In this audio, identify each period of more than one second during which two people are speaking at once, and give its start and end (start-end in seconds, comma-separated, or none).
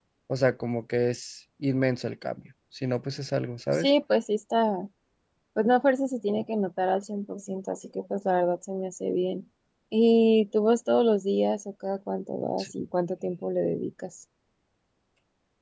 none